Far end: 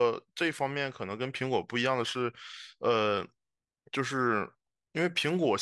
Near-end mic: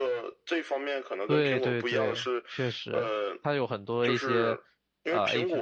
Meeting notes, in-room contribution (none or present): present